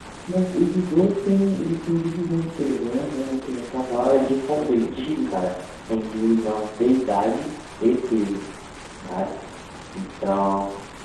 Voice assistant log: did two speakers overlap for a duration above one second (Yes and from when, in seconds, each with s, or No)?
Yes, from 3.9 s